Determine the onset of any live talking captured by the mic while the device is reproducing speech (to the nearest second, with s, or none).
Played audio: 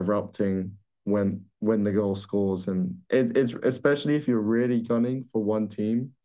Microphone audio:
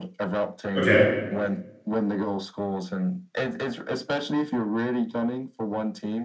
1 s